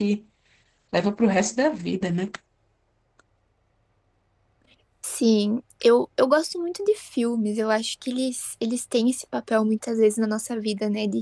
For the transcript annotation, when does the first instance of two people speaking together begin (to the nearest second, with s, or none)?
none